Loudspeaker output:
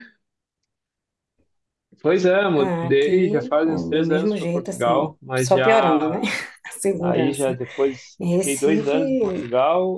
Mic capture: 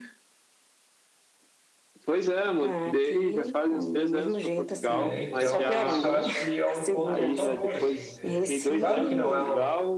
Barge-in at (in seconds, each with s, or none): 4.9 s